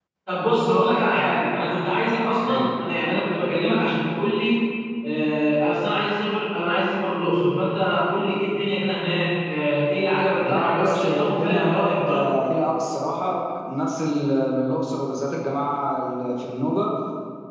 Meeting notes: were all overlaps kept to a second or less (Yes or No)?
No